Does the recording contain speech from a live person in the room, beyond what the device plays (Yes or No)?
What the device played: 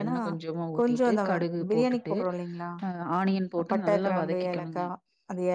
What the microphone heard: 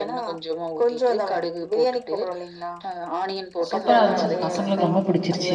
Yes